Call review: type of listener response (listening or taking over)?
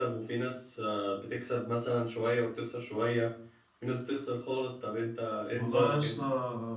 taking over